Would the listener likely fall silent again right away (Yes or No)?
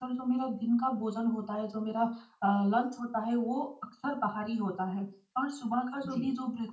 Yes